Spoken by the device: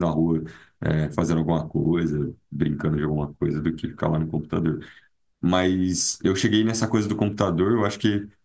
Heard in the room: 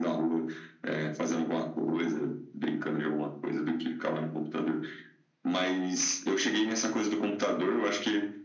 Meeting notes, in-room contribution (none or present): none